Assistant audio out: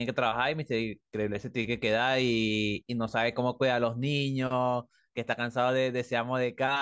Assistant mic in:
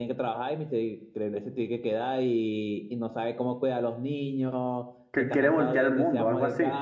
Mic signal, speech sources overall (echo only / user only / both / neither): both